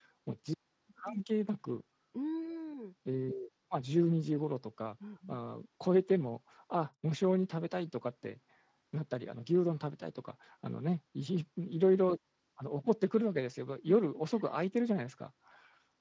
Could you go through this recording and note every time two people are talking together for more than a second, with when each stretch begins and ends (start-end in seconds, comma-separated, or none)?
none